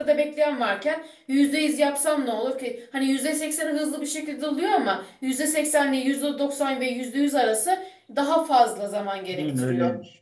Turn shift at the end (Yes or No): Yes